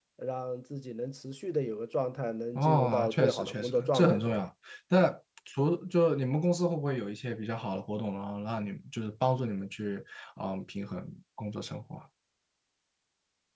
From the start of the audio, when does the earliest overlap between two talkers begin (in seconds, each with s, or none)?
2.6 s